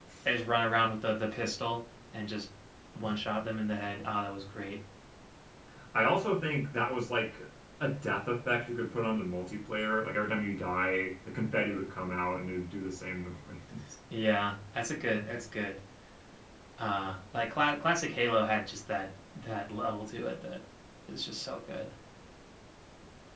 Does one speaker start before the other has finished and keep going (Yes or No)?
No